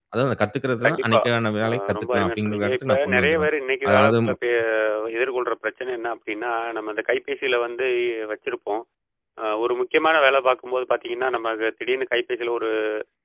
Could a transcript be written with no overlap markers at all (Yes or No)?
No